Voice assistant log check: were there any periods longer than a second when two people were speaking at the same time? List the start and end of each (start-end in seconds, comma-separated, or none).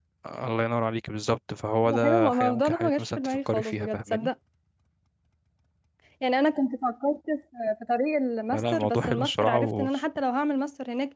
1.9-4.3, 8.5-9.9